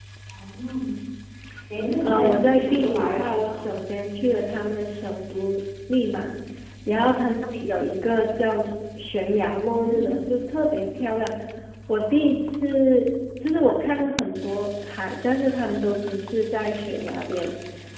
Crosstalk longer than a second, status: present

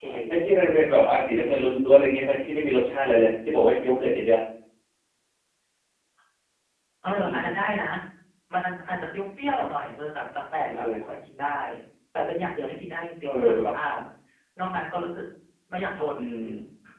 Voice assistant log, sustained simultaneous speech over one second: none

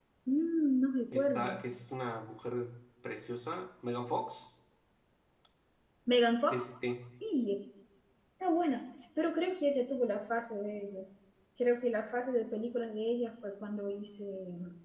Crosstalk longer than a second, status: none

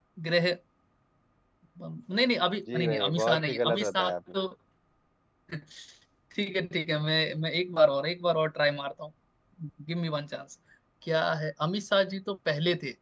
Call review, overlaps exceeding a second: present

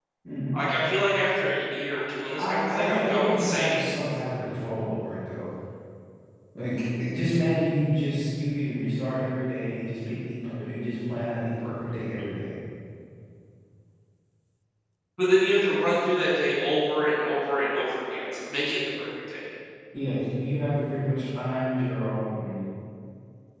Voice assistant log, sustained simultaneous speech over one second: present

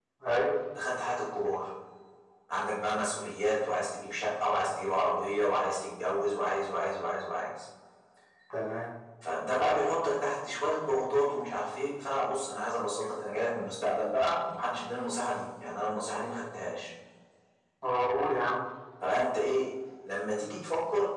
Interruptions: none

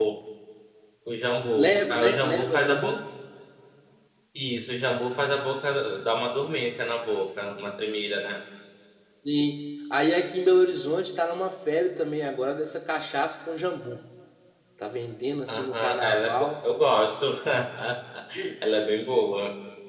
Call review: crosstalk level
present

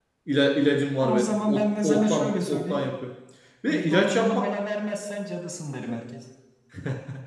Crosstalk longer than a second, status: present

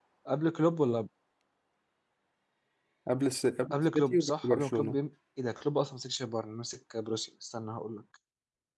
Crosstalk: present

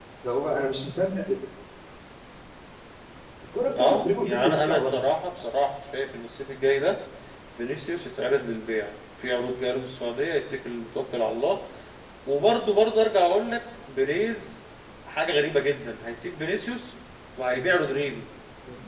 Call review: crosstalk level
present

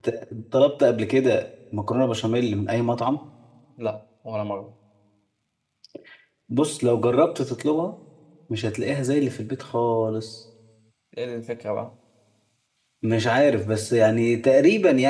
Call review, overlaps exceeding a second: none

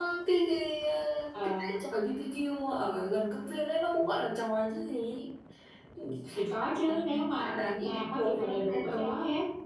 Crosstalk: present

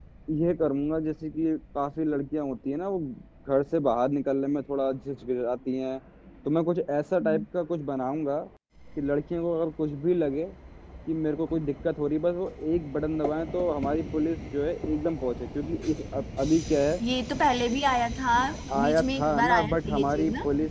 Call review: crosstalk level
present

